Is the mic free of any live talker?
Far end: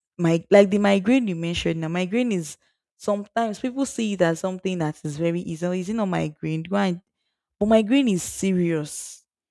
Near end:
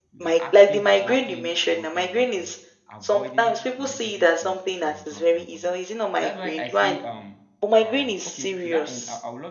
No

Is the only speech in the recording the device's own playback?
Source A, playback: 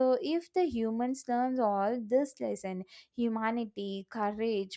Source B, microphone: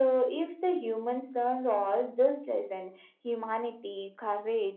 Yes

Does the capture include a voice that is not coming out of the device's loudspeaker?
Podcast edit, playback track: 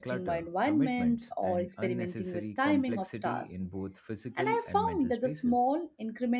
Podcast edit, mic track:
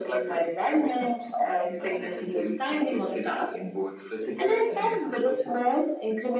No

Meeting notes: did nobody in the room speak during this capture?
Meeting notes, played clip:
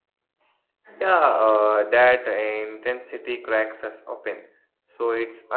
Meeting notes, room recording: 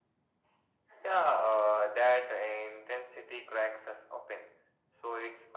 Yes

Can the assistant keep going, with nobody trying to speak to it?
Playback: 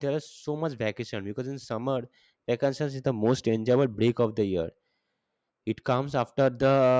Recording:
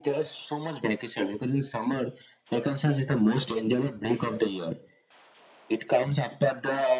Yes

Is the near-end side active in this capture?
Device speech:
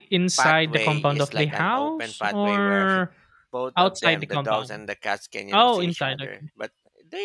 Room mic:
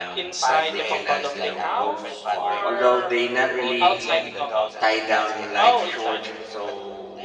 Yes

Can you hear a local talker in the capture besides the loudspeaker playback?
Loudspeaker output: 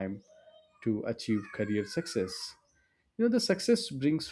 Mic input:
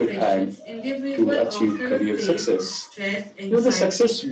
Yes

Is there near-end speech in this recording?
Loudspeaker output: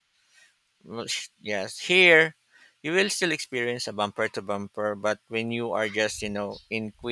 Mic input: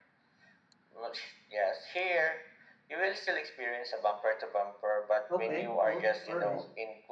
Yes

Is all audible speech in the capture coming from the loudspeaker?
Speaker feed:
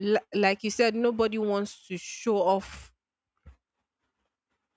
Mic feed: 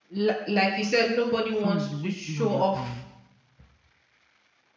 No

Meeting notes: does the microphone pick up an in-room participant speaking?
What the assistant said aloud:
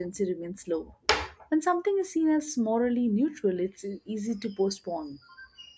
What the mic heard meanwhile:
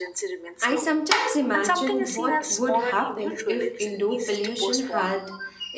Yes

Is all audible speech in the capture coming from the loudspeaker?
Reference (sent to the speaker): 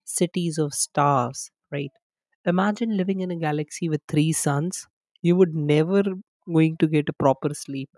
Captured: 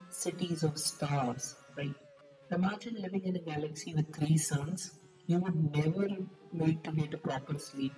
Yes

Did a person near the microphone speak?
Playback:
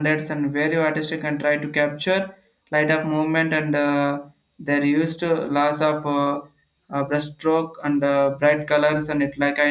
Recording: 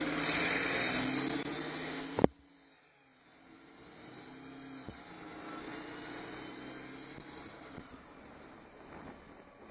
No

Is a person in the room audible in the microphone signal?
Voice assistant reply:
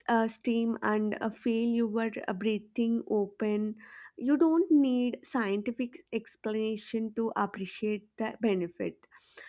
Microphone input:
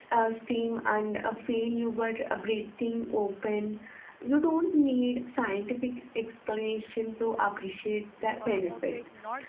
Yes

